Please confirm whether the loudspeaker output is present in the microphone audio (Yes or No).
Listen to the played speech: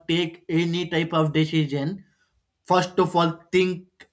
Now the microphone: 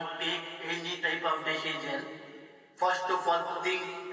Yes